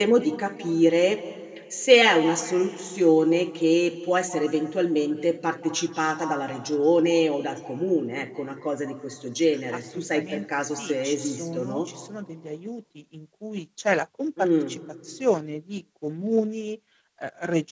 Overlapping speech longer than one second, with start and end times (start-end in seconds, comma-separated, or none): 9.7-11.8